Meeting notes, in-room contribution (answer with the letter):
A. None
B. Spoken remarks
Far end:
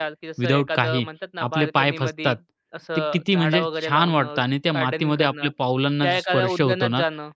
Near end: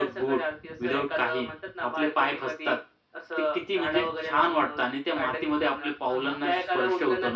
B